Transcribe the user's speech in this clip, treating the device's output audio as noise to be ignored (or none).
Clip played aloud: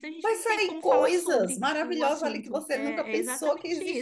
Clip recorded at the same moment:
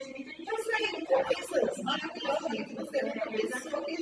none